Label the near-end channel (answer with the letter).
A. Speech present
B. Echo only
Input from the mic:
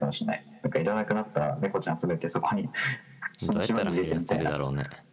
A